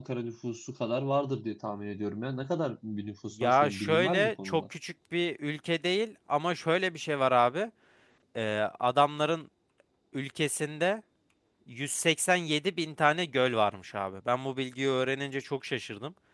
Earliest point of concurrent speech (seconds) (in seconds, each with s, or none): 3.4 s